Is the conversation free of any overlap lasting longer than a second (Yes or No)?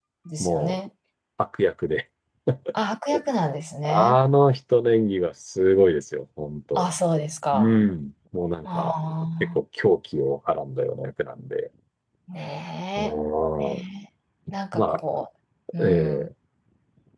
Yes